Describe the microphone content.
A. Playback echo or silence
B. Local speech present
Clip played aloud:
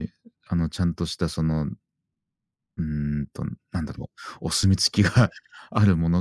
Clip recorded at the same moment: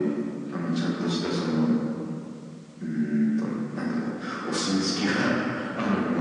A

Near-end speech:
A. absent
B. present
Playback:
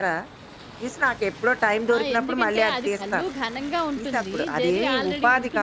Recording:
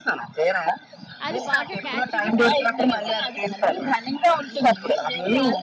B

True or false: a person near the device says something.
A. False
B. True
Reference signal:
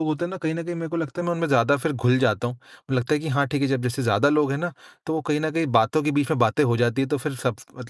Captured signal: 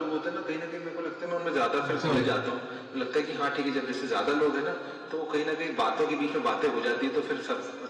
B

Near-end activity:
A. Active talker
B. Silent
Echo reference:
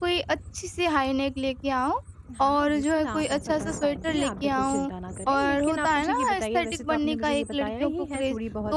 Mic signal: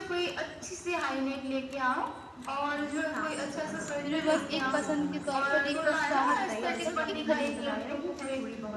A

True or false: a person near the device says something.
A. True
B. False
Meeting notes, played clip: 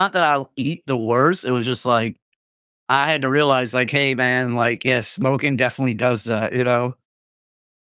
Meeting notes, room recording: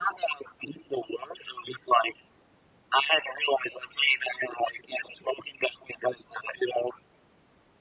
B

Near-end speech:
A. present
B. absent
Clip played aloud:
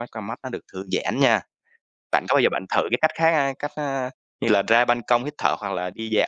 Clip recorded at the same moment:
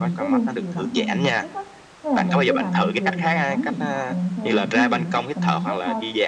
A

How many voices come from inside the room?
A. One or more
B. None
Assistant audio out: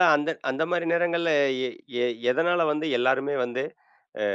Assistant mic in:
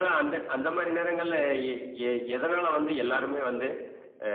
B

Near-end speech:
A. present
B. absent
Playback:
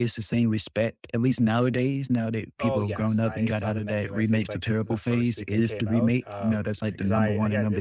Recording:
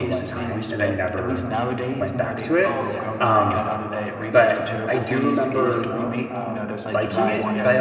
A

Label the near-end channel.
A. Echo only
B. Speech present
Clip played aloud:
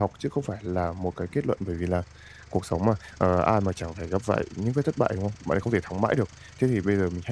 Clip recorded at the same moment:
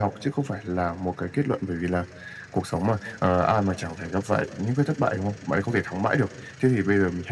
A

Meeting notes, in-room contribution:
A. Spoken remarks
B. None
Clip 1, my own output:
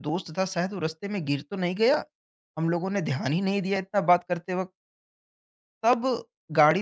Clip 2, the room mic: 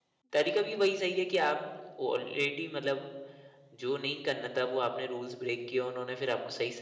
A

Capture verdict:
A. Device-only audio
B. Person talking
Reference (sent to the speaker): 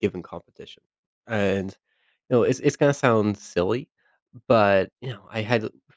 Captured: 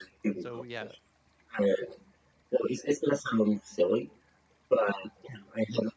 B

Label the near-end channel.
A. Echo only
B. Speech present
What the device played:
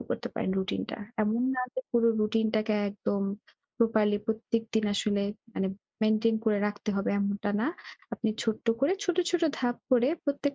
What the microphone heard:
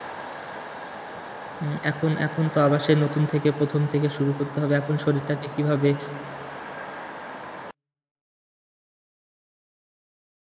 B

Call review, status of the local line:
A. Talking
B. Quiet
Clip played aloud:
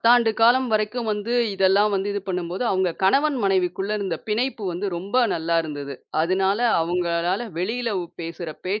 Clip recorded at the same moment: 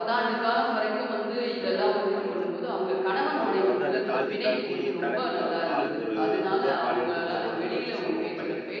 A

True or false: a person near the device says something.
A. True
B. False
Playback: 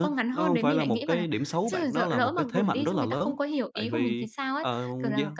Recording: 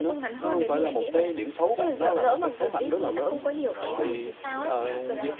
A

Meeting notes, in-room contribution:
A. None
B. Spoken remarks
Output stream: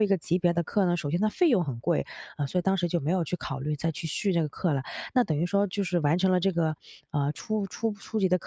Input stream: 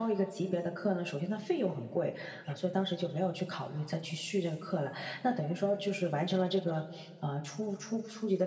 A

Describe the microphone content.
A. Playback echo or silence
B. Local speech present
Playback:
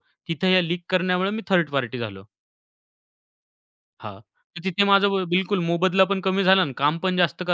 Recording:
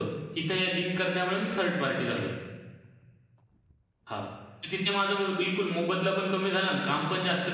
A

